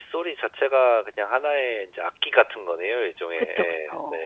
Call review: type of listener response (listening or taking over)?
taking over